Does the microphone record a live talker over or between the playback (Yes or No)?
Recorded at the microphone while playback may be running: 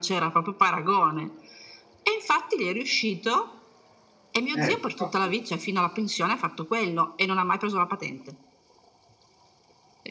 Yes